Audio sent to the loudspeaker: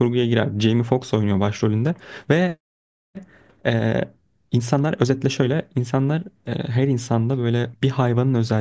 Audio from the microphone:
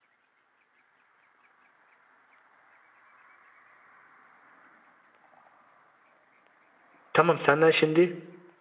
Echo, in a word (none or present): none